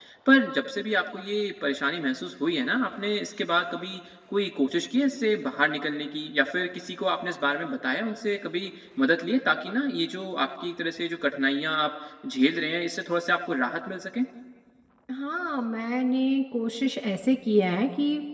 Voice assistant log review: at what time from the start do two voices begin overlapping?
none

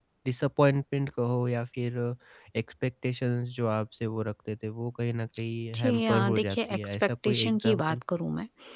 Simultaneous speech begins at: 6 s

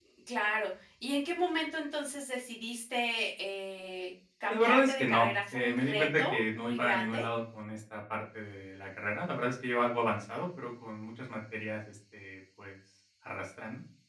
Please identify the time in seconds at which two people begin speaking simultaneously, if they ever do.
4 s

